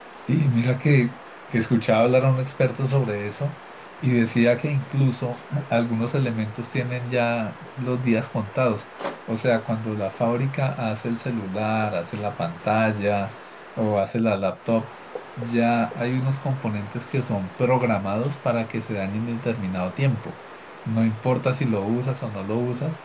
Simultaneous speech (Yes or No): No